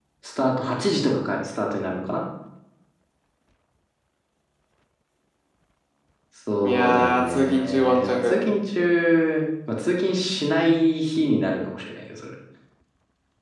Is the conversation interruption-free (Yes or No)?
No